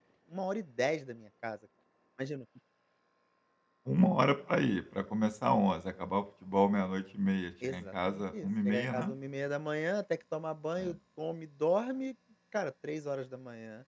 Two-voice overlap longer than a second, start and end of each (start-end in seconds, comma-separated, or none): 7.6-9.1